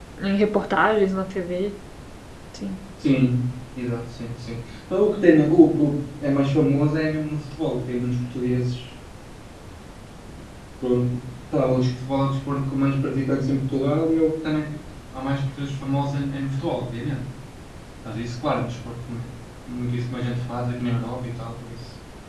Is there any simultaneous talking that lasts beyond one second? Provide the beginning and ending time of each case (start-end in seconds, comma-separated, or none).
none